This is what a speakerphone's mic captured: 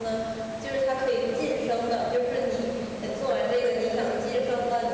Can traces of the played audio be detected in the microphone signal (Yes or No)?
No